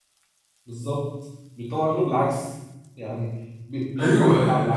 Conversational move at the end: taking over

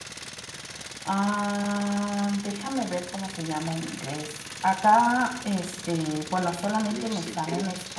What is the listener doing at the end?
taking over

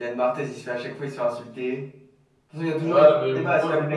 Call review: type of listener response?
taking over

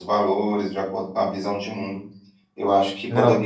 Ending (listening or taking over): listening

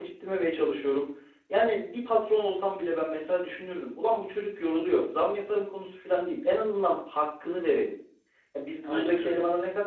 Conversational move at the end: listening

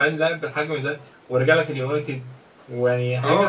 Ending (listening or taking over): taking over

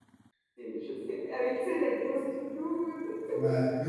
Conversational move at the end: taking over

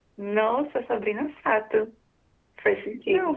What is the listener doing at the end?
taking over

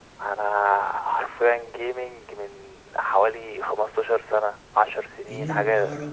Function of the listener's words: taking over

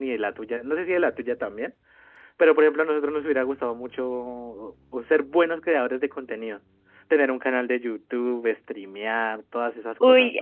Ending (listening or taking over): taking over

